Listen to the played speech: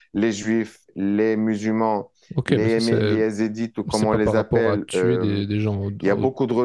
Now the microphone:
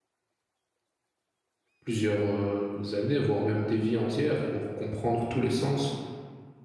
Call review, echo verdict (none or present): none